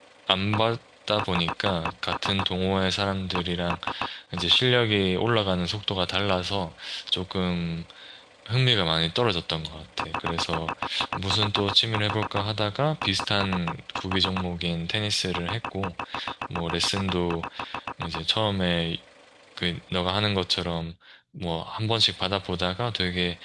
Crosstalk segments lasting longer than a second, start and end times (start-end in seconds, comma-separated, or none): none